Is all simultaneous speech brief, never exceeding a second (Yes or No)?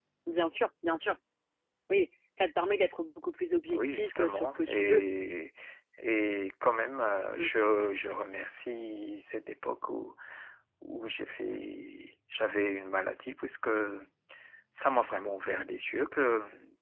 No